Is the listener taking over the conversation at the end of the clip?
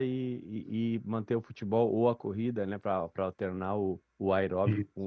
No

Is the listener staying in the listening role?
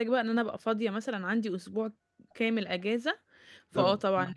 No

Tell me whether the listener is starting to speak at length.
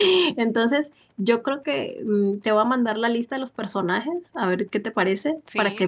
No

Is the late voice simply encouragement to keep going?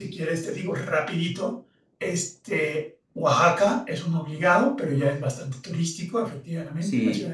Yes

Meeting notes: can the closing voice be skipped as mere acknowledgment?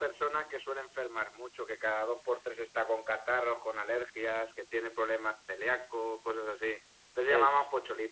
Yes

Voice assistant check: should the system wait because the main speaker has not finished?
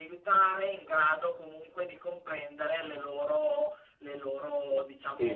No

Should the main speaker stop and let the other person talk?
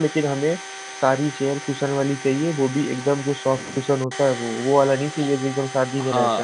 Yes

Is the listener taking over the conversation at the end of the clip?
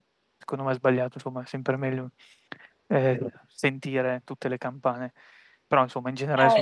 No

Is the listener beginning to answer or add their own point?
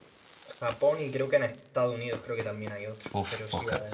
Yes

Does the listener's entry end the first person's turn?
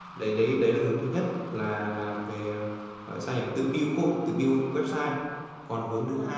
No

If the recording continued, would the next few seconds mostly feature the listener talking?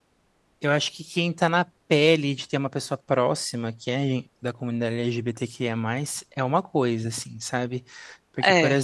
No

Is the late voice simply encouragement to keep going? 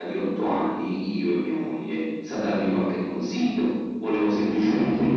Yes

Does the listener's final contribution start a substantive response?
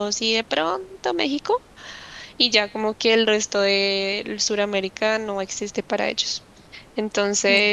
No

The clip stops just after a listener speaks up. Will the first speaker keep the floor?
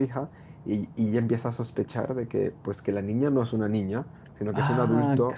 No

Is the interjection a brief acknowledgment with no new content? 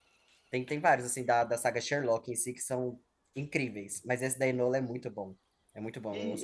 No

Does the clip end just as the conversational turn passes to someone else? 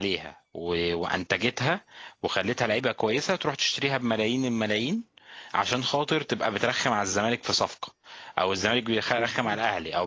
No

